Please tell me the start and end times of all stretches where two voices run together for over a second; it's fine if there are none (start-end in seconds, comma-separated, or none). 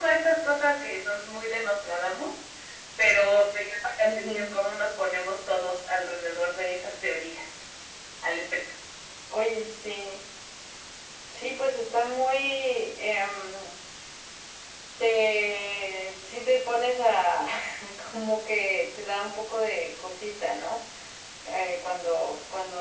none